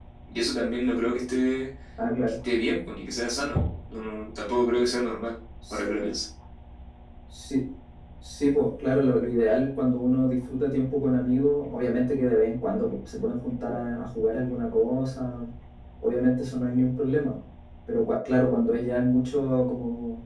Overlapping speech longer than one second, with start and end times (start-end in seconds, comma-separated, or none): none